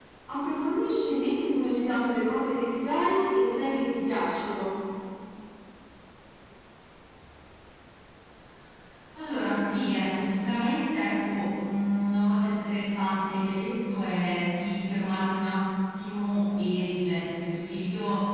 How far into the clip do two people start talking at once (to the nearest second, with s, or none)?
none